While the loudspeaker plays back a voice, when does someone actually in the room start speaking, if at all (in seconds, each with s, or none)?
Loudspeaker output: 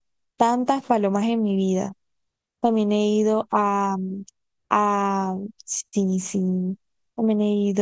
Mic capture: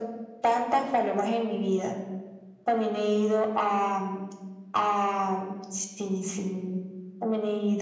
none